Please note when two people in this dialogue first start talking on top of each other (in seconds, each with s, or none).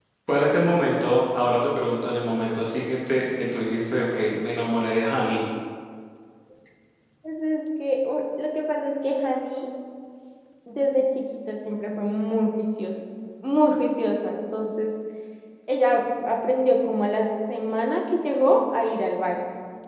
none